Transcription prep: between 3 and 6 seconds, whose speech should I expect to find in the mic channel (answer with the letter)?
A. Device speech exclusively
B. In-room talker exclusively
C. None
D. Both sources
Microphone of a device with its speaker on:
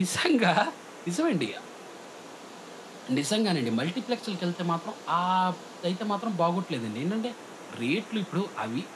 A